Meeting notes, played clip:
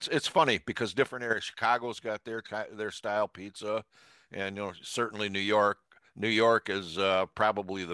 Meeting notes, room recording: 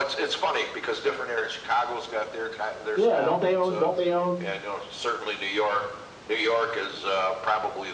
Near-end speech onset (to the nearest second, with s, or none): 3 s